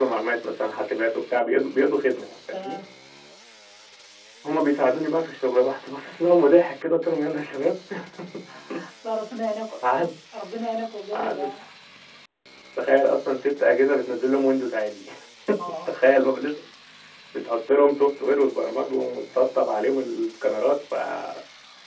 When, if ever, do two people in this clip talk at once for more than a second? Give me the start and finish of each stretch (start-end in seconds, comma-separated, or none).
none